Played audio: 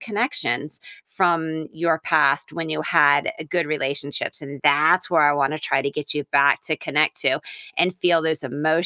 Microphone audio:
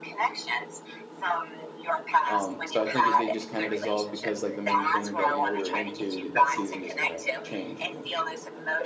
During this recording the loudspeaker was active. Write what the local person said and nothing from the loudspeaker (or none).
um, so I think it did just kinda dissolve because, like, the main thing that, you know, we were into that season just kinda changed, you know?